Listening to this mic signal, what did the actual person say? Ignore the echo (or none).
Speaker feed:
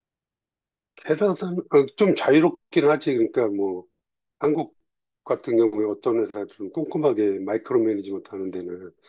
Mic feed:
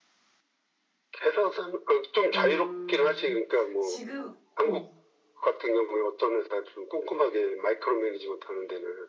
음 지금 어